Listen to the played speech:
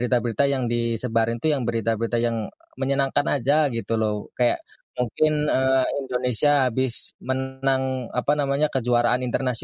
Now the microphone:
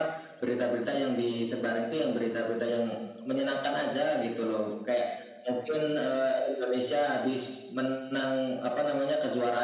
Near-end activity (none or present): none